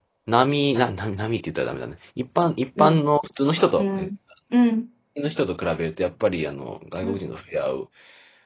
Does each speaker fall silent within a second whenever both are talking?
Yes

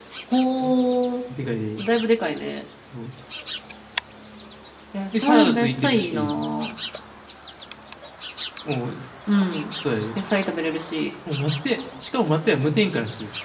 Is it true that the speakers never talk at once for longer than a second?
No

